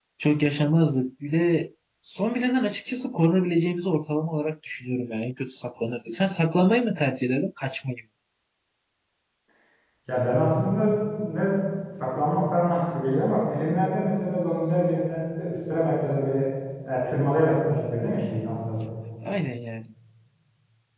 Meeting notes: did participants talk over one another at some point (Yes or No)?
No